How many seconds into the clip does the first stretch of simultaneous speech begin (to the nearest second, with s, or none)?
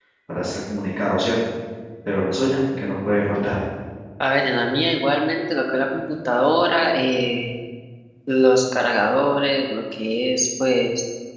none